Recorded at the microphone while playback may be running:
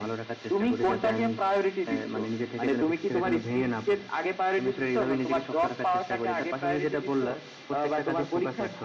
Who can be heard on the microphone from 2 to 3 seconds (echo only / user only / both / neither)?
echo only